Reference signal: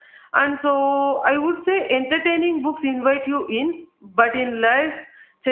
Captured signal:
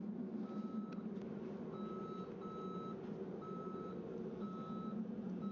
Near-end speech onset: none

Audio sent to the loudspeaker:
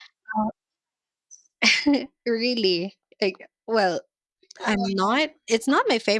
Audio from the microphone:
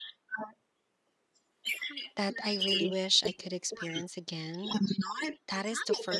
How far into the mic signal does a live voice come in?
2.2 s

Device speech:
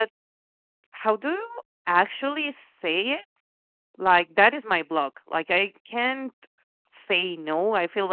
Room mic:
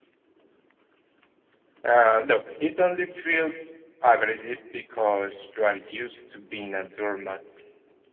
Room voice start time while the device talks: 1.8 s

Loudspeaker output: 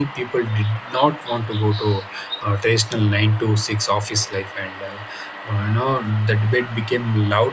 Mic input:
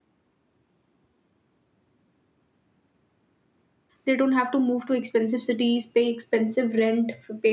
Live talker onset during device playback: 4.0 s

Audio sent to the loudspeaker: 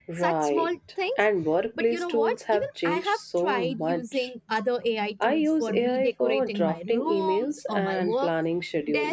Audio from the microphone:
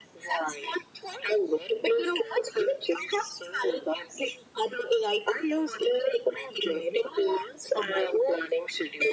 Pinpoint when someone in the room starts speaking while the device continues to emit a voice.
none

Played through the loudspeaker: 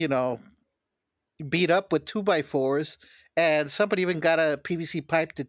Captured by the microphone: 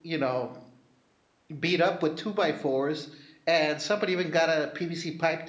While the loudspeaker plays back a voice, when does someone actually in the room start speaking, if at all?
none

